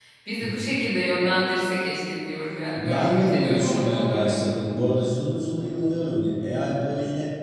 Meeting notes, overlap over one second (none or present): present